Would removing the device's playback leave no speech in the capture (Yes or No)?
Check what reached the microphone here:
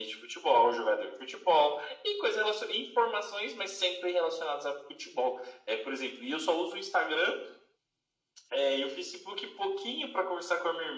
Yes